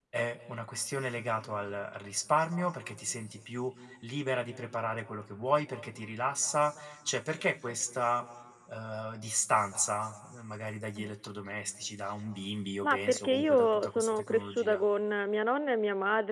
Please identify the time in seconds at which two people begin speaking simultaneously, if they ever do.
12.8 s

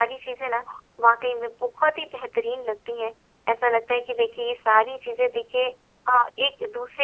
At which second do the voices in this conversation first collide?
none

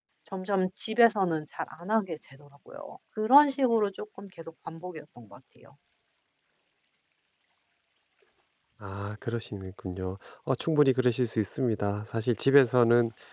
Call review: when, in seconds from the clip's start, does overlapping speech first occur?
none

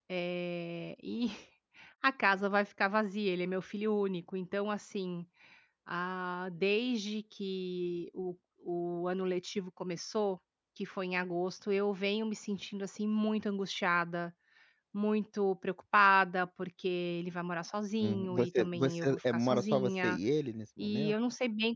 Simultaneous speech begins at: 18.0 s

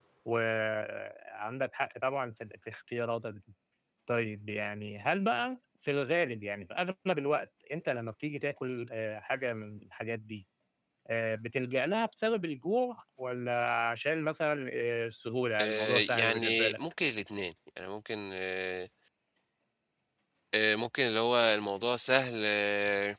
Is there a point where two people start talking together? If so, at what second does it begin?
15.6 s

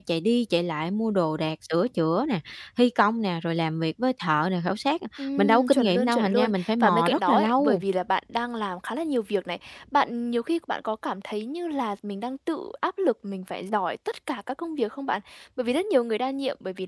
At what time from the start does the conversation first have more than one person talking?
5.2 s

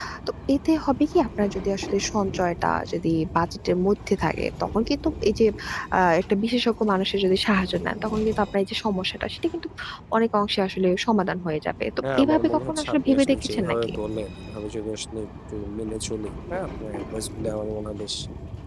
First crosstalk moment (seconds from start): 12.0 s

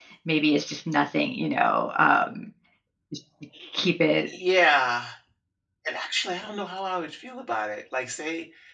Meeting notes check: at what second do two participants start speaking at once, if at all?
none

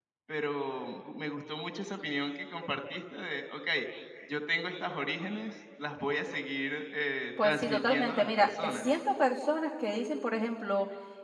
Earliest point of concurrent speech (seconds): 7.4 s

